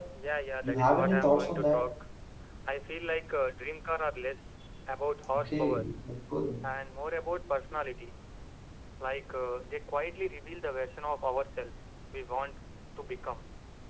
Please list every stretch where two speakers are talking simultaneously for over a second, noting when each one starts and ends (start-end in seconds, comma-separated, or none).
0.6-1.9